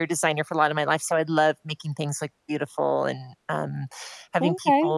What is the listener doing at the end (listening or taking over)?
listening